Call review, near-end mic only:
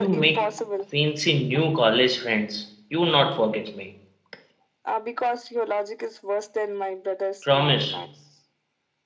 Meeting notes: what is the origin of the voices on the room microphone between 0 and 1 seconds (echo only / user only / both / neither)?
both